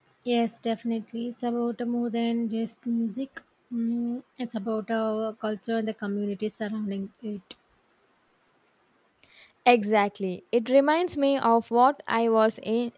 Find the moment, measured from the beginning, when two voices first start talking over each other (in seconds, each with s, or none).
none